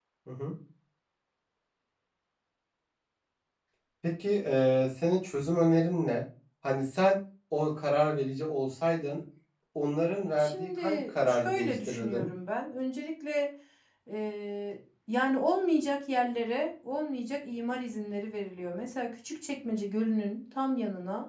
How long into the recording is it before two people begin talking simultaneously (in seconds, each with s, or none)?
10.4 s